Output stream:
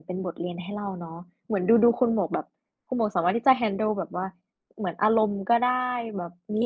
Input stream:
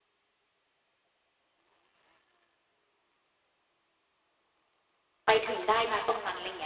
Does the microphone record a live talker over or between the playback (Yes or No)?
Yes